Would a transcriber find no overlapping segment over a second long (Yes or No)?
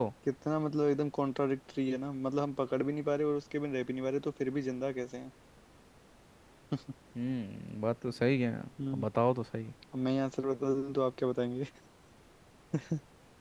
Yes